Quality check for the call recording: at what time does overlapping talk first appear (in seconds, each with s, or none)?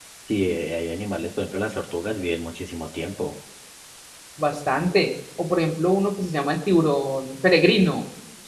none